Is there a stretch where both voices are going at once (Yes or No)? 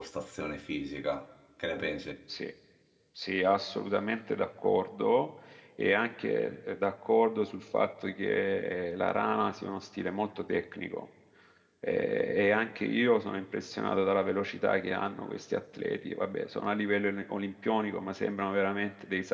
No